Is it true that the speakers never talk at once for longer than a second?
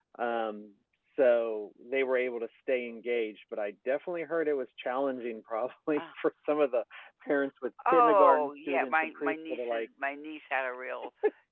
No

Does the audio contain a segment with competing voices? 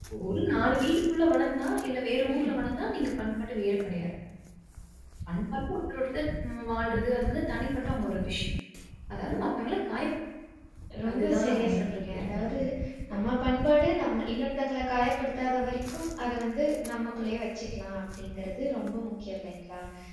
Yes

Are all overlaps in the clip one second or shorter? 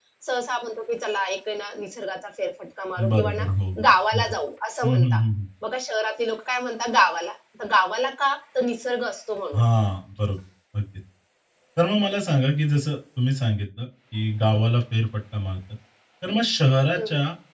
Yes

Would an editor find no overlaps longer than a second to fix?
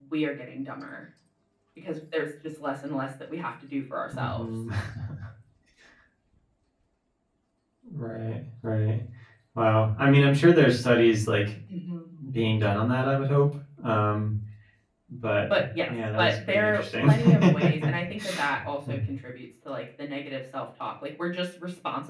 No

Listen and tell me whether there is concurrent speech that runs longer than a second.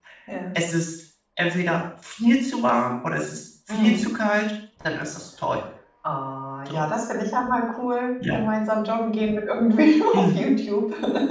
No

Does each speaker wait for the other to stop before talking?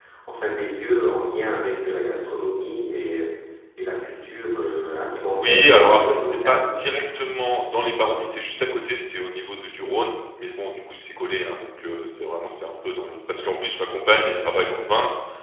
No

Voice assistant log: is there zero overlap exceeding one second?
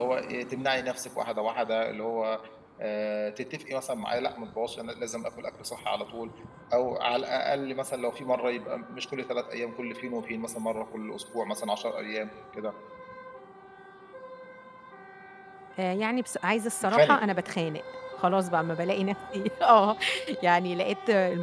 Yes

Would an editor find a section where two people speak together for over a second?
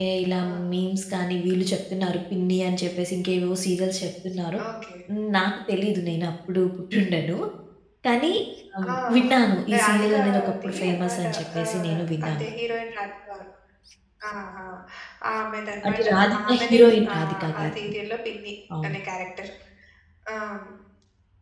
Yes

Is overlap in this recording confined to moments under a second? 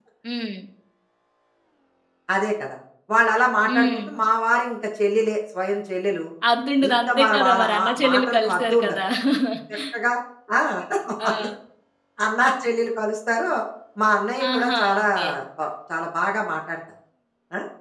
No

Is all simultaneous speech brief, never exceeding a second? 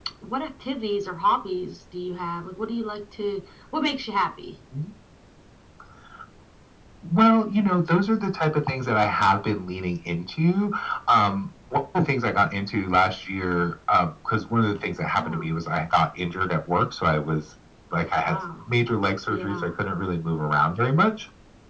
Yes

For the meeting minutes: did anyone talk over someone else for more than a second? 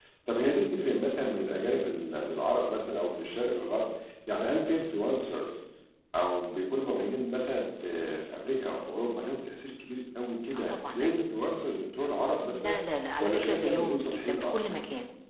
Yes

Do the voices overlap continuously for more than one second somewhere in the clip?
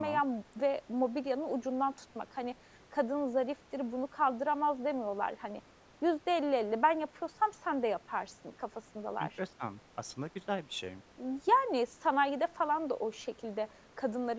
No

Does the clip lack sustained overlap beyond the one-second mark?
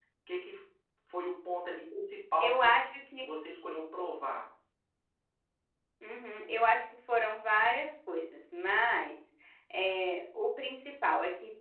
Yes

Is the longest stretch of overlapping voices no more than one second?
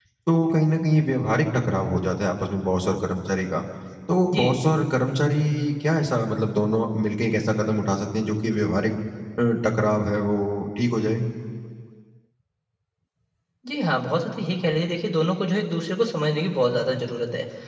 Yes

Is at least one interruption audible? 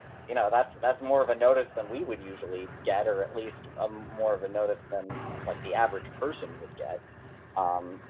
No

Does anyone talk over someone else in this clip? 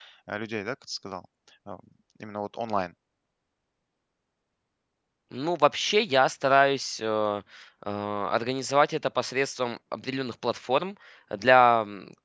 No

